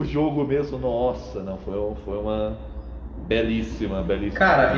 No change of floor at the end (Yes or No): No